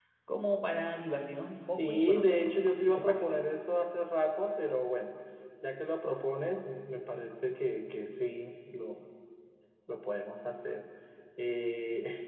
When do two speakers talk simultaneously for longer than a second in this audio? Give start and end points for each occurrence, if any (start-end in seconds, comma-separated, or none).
1.7-3.3